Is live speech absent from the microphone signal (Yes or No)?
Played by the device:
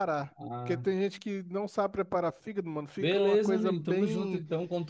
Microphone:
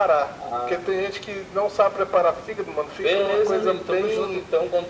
Yes